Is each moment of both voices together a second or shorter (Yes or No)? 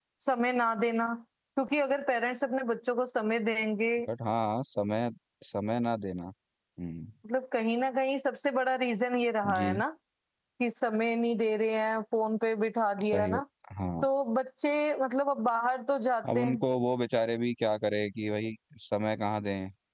Yes